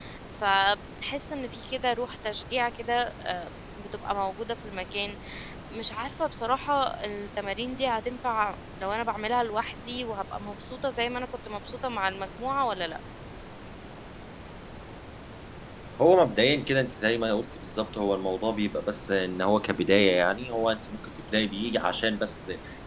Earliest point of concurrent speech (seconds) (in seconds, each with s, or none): none